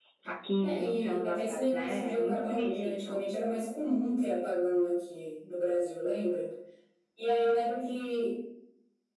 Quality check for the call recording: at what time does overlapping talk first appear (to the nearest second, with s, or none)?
1 s